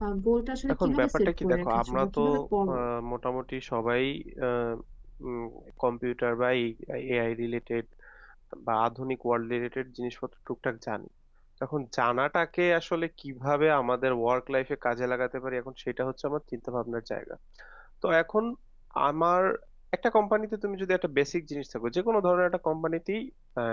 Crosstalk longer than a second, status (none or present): present